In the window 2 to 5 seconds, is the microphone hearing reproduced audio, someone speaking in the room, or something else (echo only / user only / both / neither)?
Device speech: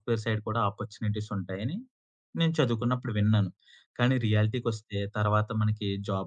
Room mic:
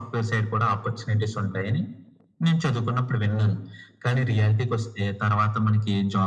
echo only